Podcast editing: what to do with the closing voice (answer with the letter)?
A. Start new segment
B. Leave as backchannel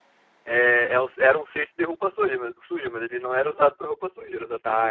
A